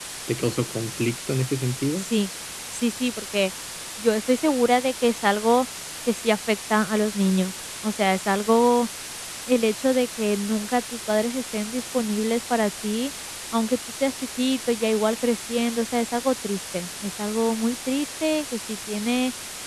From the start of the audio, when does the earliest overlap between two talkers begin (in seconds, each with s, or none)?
none